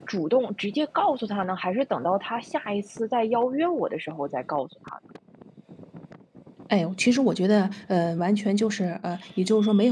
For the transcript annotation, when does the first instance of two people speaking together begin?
none

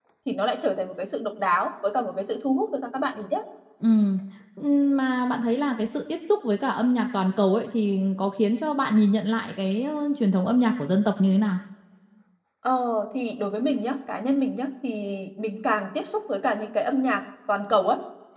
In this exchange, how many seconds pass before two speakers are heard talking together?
none

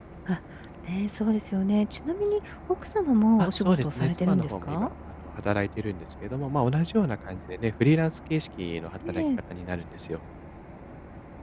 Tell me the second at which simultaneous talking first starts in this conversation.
3.4 s

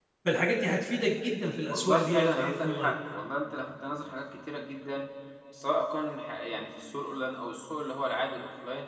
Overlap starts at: 1.7 s

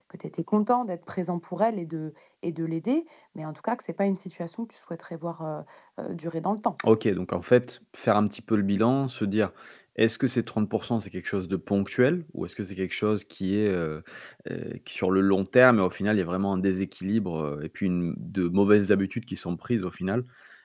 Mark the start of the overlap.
none

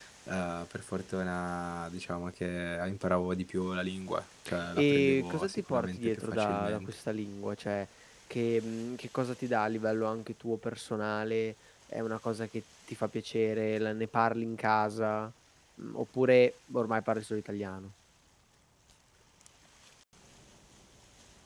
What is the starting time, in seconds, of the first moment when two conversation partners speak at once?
4.7 s

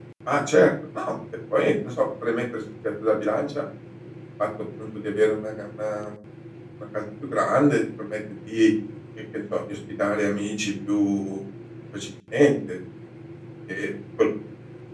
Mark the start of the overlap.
none

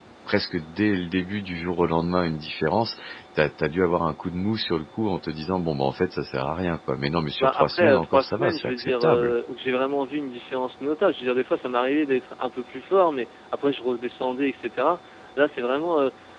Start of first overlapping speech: 7.4 s

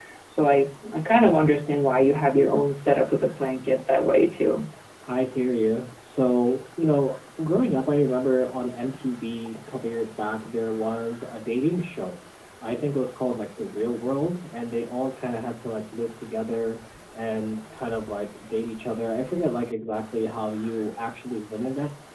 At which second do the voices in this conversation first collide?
none

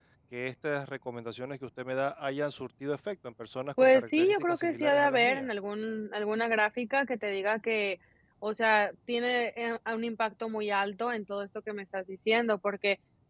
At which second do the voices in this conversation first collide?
3.8 s

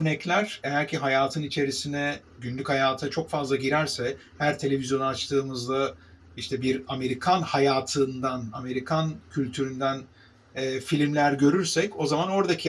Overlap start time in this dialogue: none

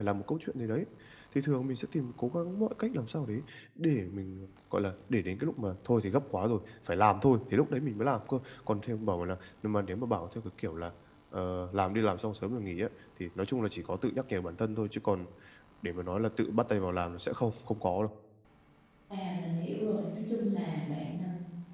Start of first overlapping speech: none

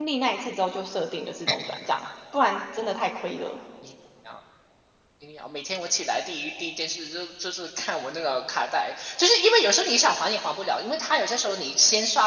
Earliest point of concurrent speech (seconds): none

